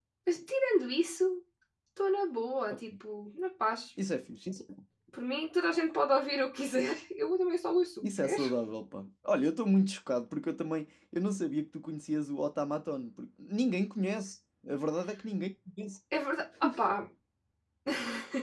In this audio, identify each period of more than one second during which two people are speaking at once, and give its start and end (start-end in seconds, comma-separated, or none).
none